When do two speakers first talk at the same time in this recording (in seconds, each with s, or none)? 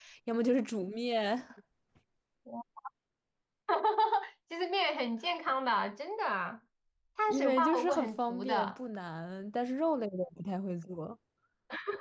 7.3 s